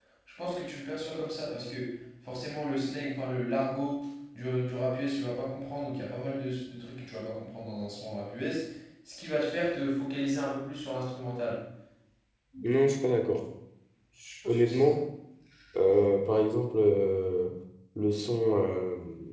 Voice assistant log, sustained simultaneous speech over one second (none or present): none